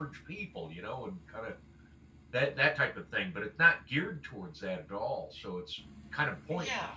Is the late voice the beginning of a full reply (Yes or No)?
Yes